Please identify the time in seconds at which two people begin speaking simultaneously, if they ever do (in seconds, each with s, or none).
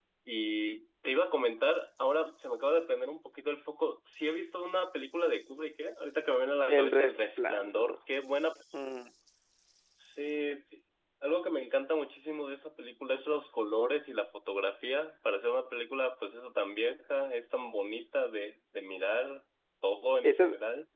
6.7 s